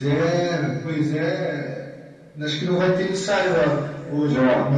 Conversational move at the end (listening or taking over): taking over